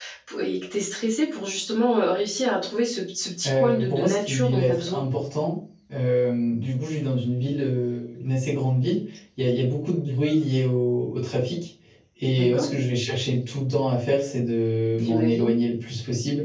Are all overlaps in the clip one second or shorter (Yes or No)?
No